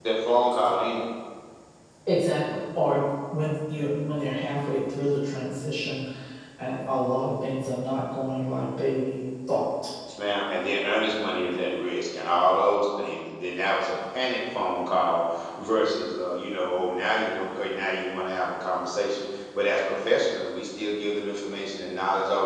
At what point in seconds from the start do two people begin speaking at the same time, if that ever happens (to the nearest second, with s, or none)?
none